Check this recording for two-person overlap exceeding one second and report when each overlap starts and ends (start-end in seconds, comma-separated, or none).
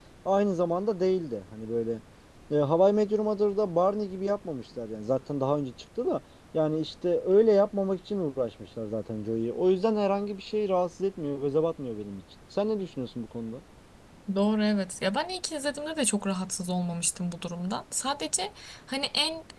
none